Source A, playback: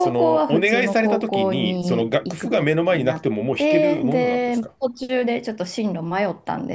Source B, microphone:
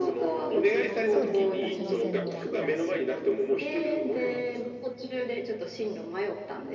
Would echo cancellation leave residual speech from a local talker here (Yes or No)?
Yes